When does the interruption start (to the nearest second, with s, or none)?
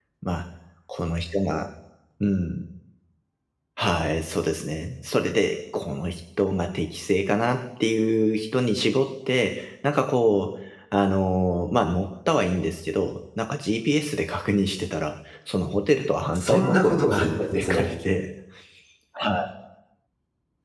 16 s